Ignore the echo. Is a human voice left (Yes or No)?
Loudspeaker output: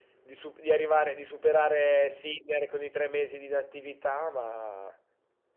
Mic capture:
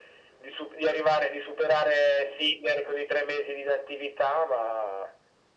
No